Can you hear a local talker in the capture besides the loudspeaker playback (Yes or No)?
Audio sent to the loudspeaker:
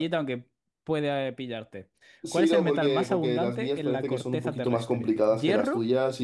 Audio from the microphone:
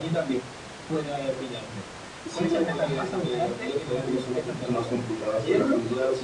No